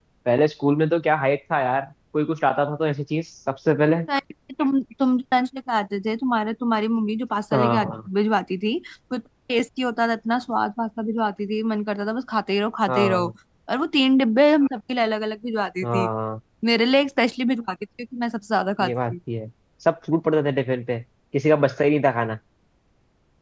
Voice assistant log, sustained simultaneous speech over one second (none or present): none